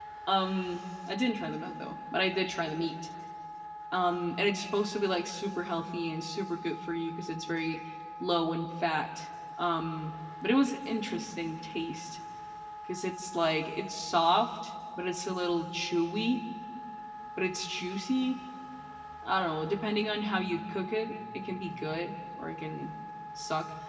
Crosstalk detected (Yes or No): No